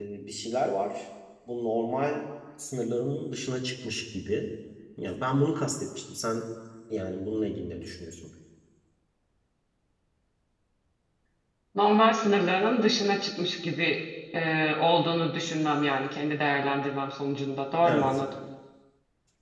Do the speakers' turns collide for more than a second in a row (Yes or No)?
No